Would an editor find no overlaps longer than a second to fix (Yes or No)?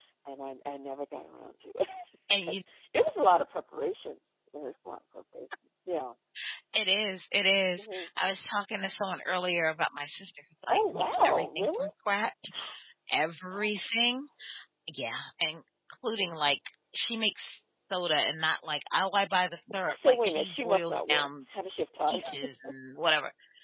No